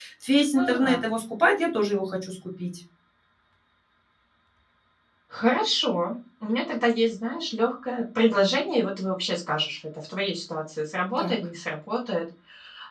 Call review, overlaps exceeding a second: none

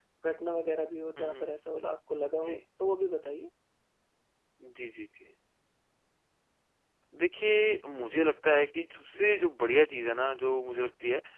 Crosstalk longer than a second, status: none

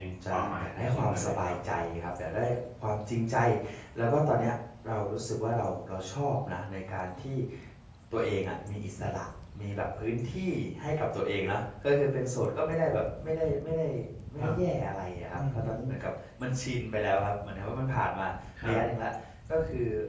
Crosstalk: present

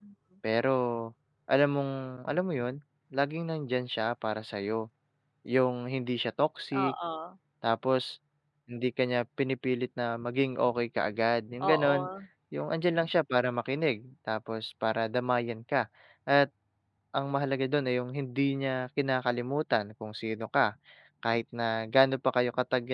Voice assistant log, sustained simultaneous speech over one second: none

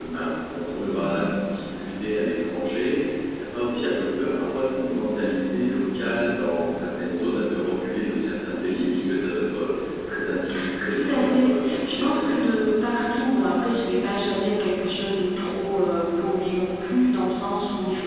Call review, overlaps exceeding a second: present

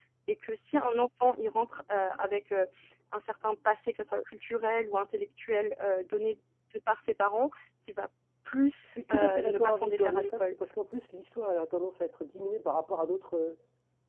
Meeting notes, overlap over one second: present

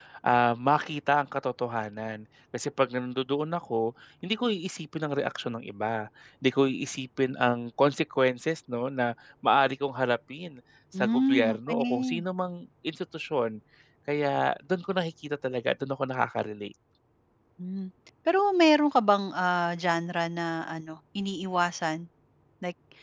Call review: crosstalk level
present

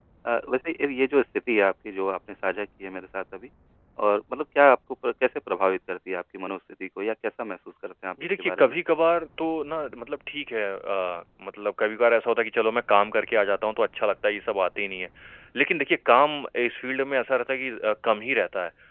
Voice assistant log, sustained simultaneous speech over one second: none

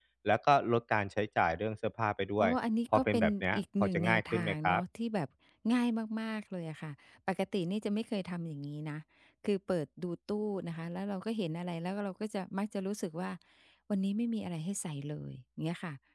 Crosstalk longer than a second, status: present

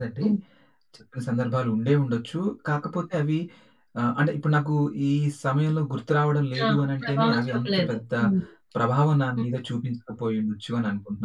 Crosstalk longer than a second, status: present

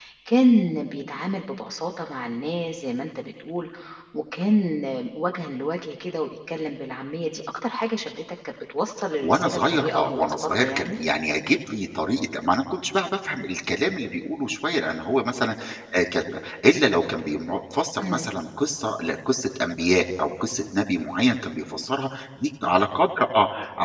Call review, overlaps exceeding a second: present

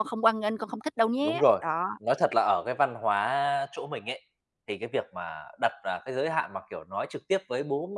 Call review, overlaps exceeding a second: none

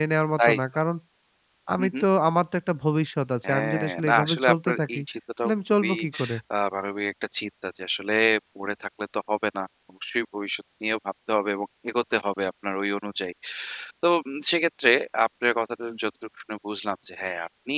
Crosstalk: present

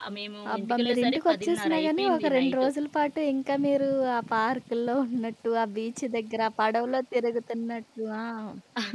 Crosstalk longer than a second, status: present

